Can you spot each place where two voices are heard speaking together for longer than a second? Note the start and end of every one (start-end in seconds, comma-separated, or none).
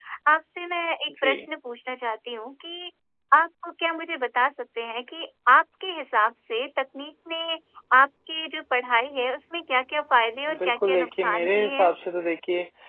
10.5-11.9